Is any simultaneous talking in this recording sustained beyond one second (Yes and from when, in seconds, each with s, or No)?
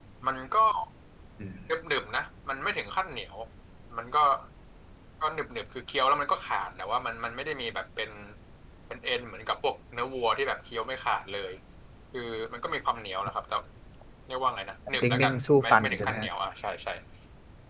Yes, from 15.0 s